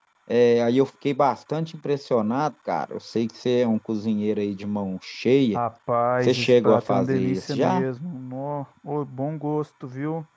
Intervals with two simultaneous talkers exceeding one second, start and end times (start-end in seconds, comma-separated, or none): 6.2-7.8